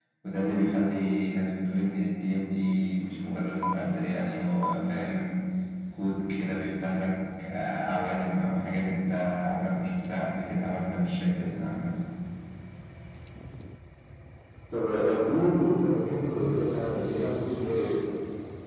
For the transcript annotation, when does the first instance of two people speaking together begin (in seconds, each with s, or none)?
none